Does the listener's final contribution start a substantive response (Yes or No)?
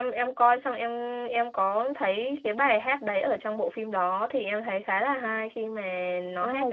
Yes